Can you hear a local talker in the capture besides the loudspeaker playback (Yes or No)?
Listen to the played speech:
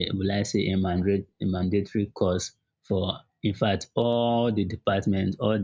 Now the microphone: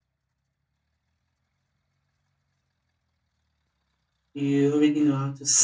Yes